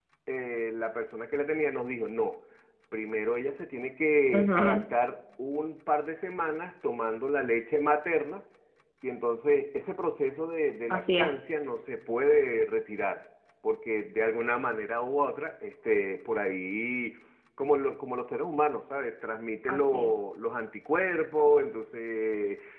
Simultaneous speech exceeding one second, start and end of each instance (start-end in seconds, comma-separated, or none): none